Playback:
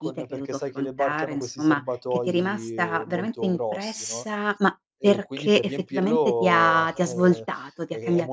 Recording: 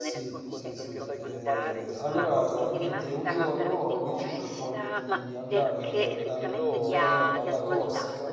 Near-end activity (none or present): present